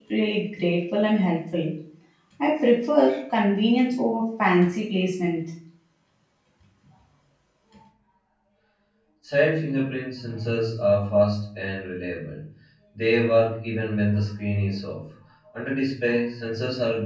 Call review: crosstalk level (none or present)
none